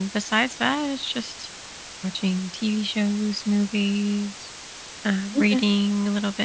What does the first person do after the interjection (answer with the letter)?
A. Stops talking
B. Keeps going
B